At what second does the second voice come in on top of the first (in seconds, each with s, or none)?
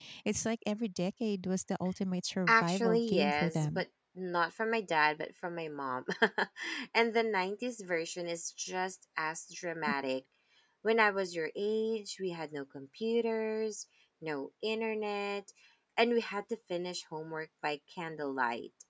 2.5 s